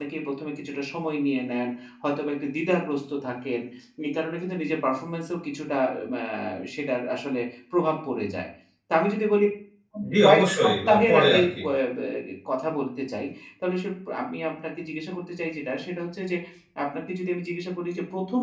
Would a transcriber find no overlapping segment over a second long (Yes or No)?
No